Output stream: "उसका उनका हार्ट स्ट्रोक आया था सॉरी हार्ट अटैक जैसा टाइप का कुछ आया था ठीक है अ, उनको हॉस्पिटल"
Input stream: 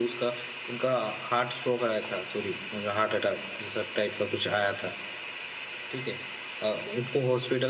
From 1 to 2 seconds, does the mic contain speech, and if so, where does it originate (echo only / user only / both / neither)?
echo only